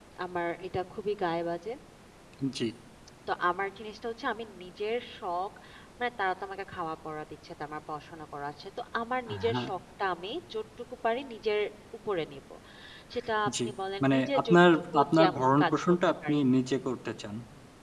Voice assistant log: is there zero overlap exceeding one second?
No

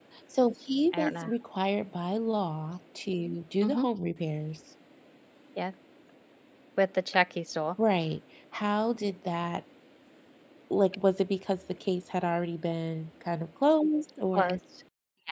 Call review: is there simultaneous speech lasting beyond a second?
No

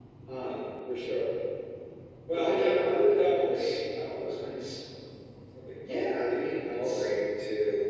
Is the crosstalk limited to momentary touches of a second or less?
No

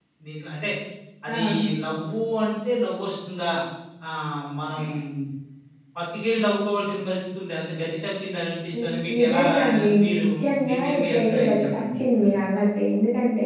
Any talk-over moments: Yes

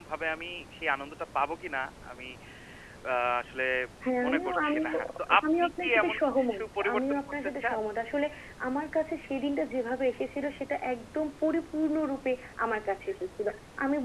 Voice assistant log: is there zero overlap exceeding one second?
No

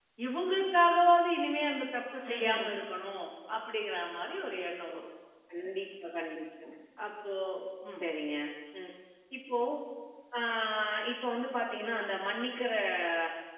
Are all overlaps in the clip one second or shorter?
Yes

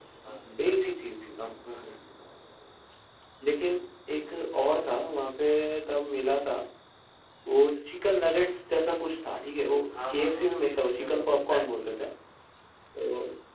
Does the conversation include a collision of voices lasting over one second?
Yes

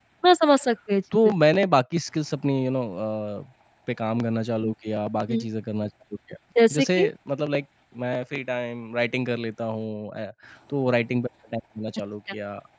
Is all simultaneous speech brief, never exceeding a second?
Yes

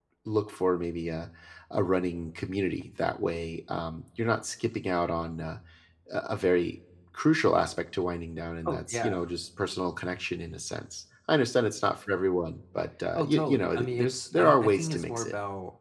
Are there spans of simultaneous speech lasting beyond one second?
Yes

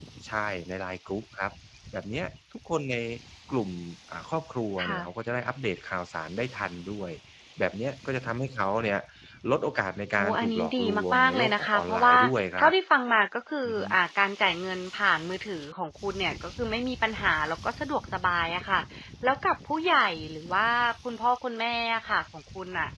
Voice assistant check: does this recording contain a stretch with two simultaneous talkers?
Yes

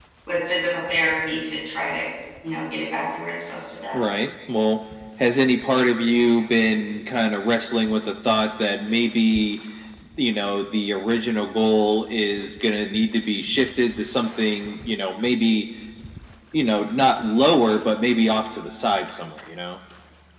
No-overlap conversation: Yes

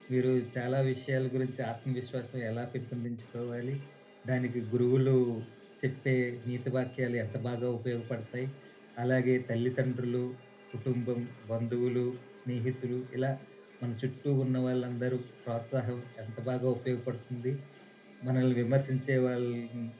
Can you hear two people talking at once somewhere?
No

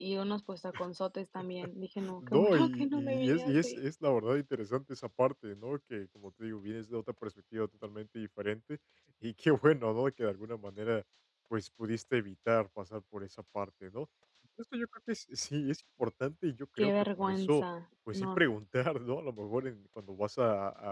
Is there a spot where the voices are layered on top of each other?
Yes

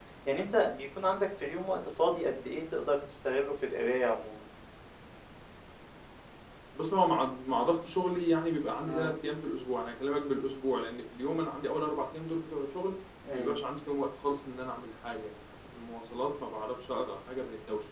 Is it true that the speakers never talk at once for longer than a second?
Yes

